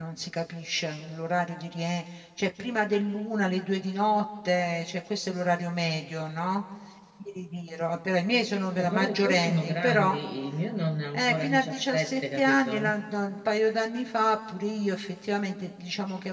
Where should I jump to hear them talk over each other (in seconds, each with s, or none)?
8.7 s